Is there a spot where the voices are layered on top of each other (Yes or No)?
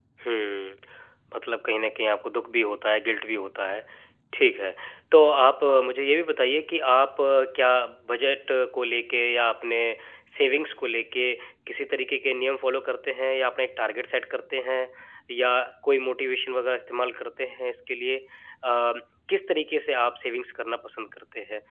No